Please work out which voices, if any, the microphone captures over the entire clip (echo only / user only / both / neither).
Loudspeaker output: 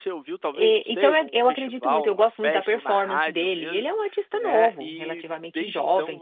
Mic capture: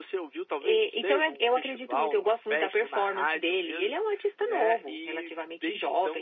echo only